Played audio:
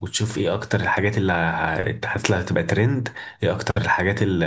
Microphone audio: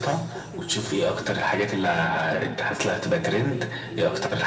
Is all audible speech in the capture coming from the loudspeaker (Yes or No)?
No